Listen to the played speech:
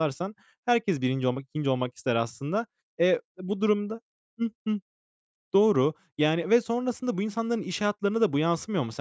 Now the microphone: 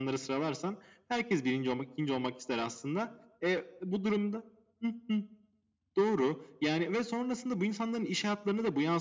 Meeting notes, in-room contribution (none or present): none